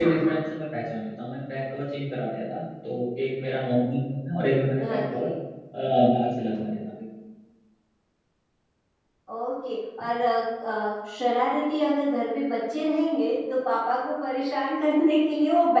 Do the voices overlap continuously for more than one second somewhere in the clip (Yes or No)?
No